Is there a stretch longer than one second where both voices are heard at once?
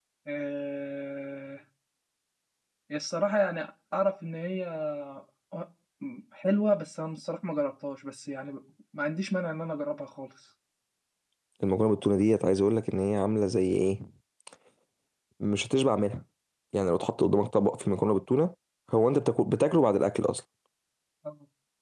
No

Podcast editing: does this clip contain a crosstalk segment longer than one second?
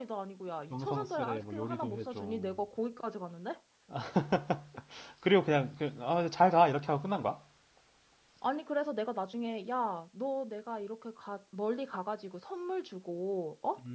Yes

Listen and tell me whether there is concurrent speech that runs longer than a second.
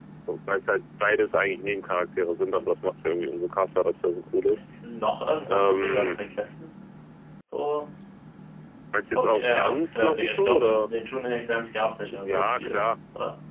Yes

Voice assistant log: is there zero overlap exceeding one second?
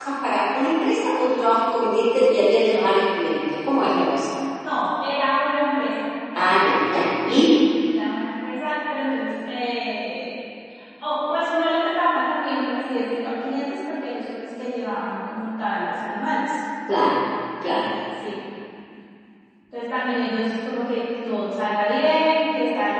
Yes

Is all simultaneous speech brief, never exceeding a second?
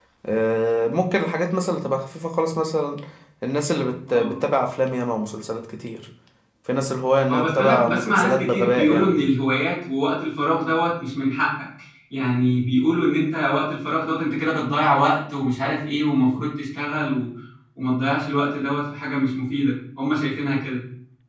No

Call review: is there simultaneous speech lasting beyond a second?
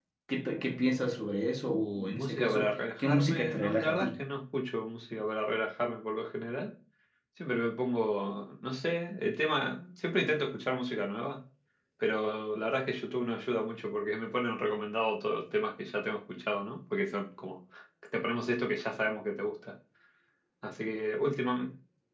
Yes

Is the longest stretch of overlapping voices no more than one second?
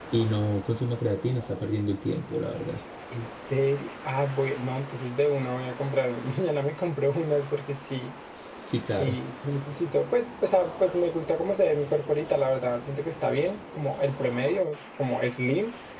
Yes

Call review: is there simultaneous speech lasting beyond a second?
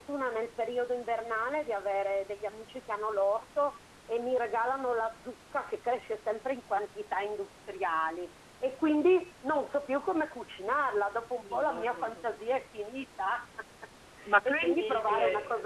Yes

